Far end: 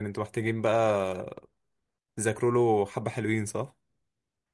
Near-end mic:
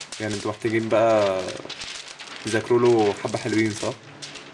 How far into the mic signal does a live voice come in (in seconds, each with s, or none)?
none